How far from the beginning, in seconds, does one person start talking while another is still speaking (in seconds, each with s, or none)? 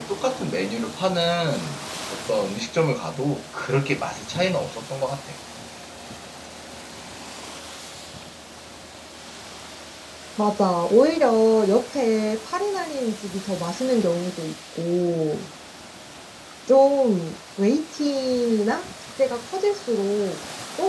none